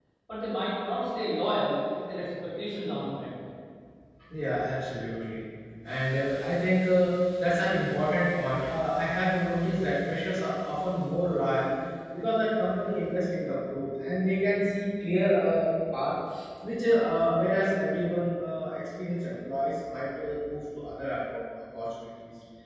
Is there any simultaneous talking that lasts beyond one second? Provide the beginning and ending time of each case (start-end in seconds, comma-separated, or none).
none